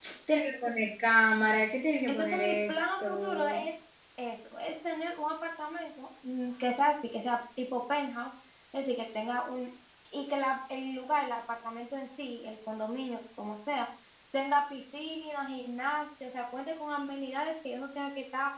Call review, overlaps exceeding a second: present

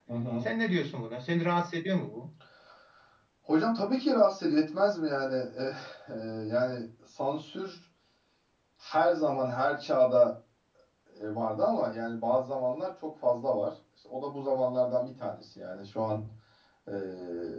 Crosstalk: none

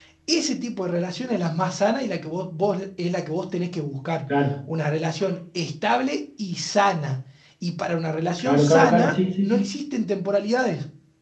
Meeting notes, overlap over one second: present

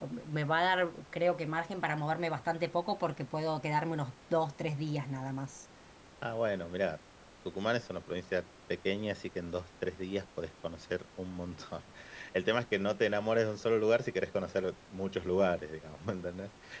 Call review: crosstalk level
none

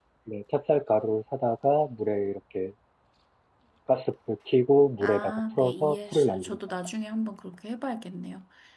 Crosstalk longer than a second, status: present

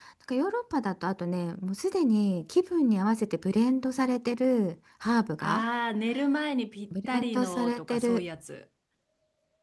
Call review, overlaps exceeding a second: present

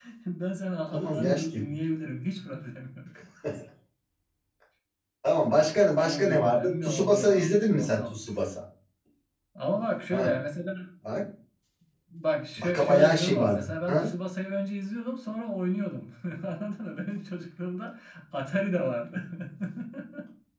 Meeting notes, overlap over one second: present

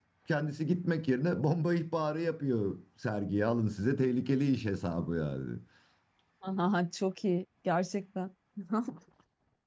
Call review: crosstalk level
none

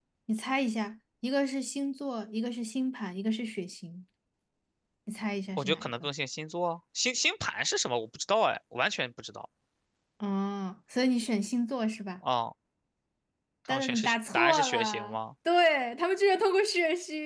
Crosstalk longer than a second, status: present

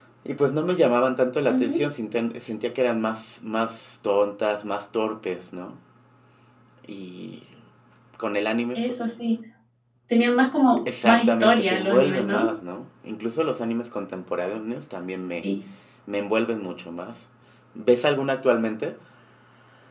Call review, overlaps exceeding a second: present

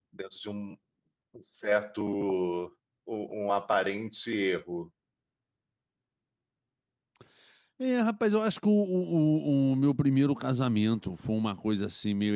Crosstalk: none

